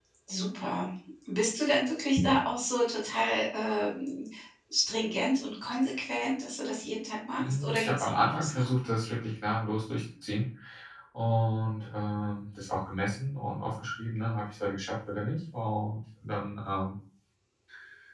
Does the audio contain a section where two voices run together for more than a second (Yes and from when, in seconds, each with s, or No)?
Yes, from 7.4 s